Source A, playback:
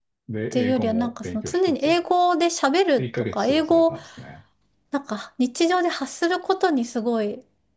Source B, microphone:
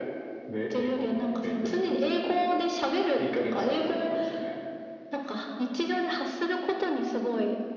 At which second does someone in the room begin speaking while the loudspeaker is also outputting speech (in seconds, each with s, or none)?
none